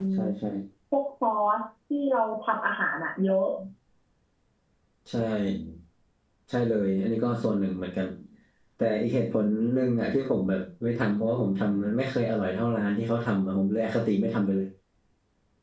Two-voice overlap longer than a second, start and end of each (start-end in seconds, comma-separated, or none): none